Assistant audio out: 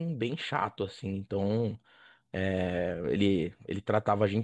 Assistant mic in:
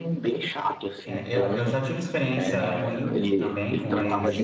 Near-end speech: present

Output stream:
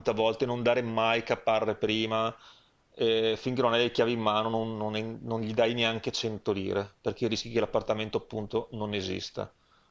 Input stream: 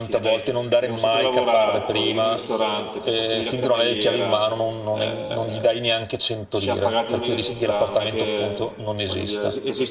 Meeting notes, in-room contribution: present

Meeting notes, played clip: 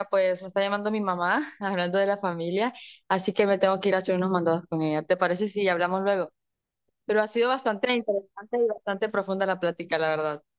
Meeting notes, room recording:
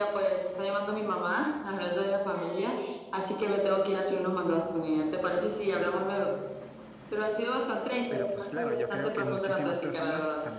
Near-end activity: present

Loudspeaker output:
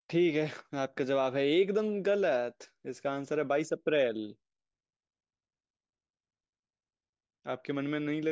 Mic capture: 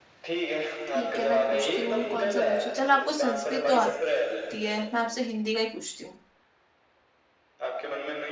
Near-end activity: present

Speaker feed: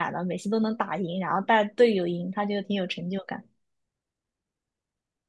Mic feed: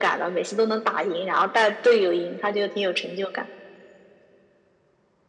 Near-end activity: none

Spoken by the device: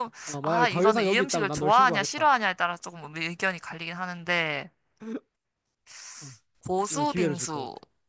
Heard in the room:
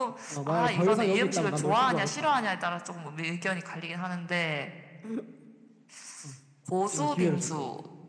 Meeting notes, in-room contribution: none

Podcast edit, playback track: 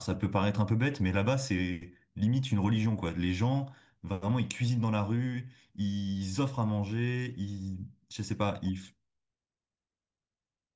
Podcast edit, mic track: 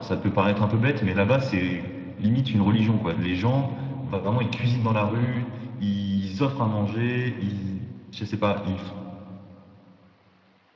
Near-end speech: none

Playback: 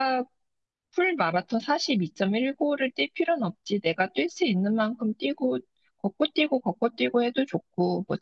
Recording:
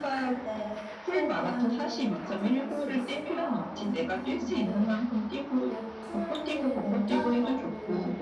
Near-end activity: present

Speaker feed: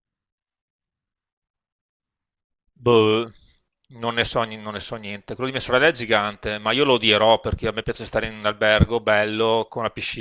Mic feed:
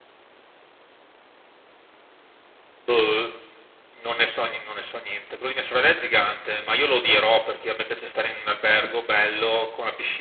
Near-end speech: none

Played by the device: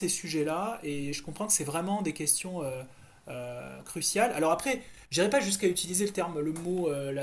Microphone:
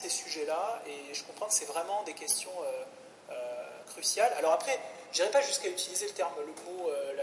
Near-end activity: none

